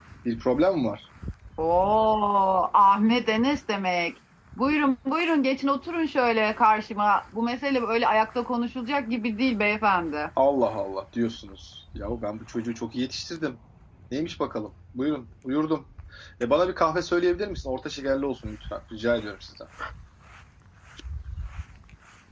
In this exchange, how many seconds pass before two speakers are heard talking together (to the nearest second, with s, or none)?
none